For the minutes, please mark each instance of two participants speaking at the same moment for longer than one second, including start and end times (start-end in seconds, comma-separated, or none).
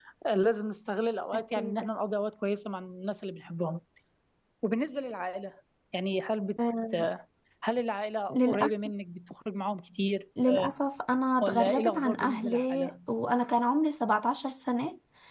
11.4-12.9